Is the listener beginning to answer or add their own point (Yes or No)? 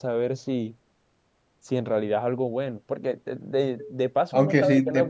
Yes